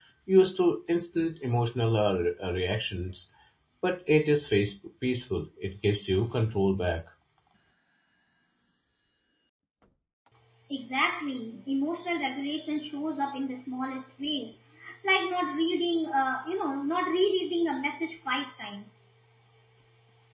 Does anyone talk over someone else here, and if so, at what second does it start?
none

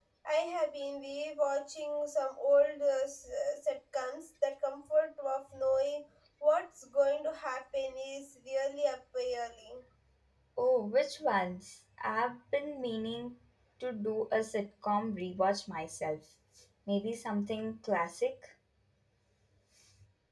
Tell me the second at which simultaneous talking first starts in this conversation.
none

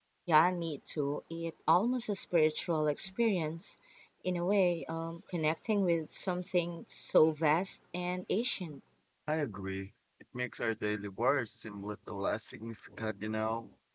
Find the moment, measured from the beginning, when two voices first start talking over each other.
none

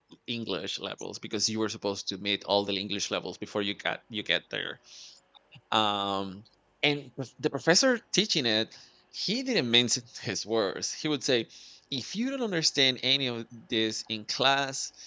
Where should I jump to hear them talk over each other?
none

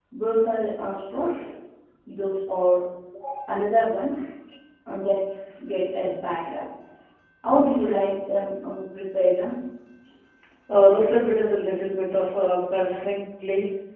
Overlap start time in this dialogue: none

